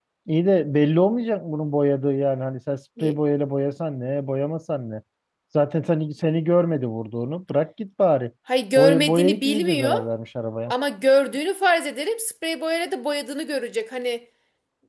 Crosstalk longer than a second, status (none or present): present